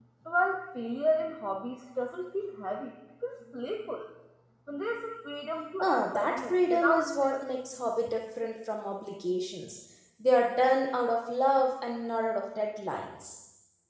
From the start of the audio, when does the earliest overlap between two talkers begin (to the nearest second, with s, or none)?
6 s